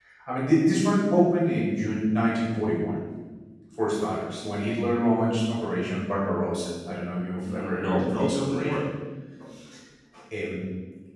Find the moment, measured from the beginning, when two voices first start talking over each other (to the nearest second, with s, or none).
7 s